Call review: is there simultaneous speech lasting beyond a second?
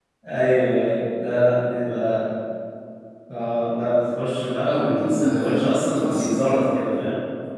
Yes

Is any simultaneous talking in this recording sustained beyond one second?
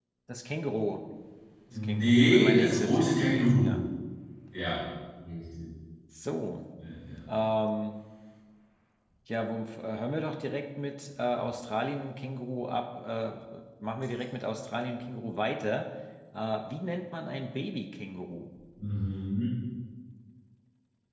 Yes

